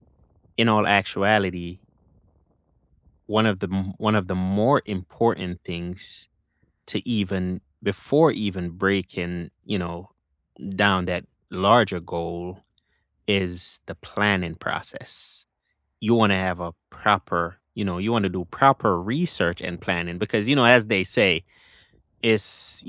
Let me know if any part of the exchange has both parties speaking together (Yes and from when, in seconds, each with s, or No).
No